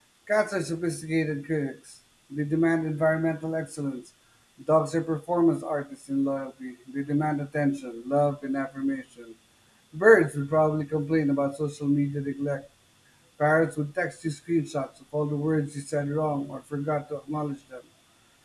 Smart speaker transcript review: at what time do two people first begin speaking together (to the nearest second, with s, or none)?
none